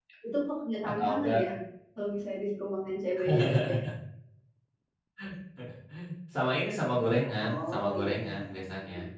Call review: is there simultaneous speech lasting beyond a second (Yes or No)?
Yes